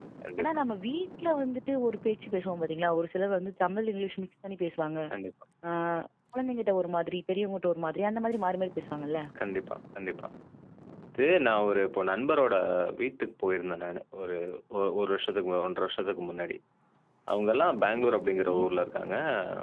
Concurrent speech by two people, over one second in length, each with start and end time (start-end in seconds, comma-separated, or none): none